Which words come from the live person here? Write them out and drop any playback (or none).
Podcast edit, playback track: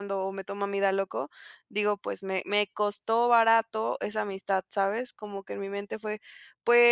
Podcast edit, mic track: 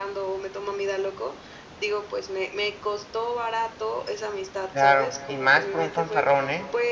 Claro, y más por un fanfarrón, ¿eh?